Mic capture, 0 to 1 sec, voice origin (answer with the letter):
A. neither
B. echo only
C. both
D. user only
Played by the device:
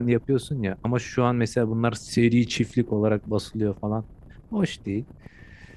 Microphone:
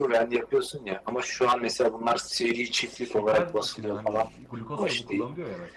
B